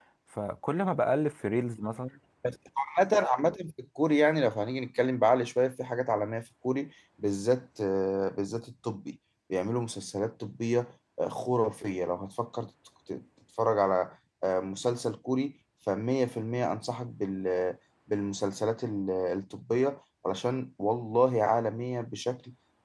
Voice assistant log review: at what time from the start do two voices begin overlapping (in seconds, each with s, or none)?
none